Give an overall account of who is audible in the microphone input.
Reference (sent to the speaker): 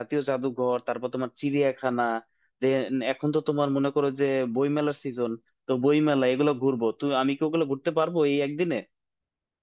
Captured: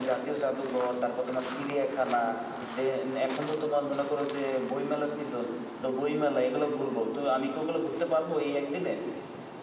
echo only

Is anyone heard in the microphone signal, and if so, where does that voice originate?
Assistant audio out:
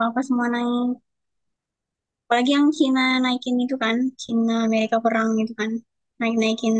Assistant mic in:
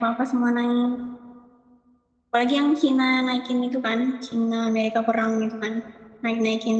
echo only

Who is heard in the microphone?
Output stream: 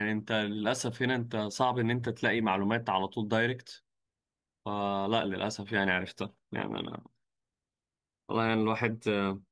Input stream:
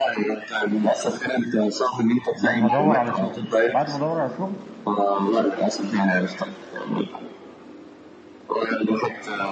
both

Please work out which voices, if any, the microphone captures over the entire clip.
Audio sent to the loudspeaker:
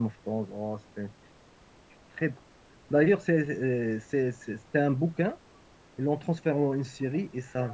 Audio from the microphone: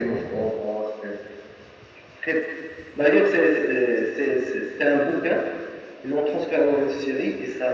echo only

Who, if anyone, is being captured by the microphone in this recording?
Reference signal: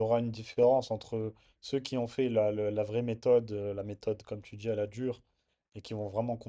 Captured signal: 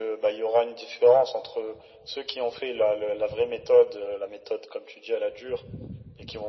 echo only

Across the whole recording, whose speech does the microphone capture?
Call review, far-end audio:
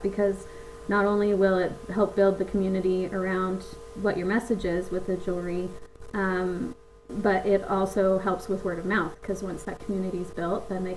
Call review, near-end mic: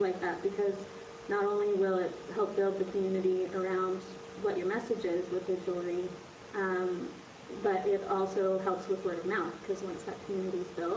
echo only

